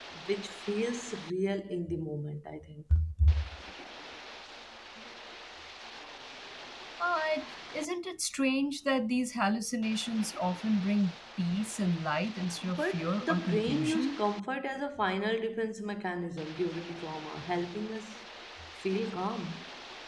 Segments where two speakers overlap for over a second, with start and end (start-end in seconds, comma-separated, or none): 12.6-14.2